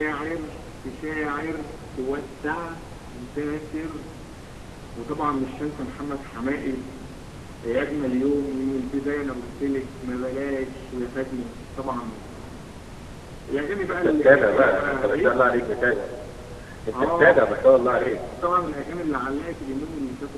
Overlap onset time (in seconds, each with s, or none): 13.9 s